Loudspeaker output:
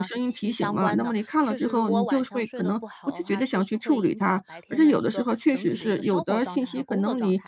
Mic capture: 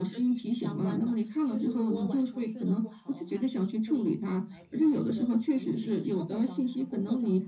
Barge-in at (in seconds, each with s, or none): none